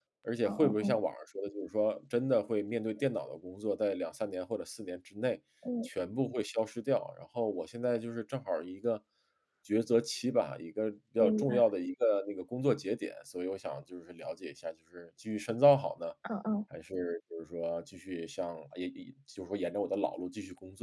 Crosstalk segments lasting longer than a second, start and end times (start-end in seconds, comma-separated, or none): none